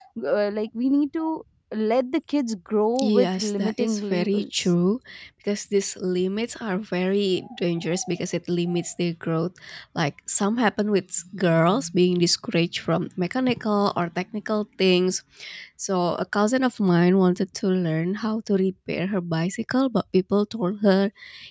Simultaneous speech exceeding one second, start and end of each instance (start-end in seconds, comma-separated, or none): 3.0-4.7